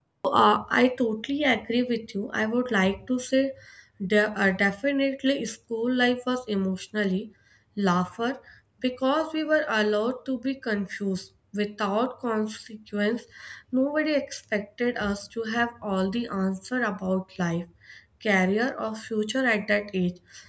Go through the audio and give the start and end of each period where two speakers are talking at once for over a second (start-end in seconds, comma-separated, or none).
none